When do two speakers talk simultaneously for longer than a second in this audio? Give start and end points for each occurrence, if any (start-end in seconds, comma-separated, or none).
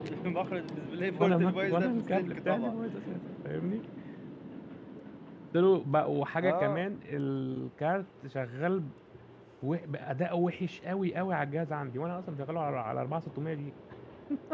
1.1-2.7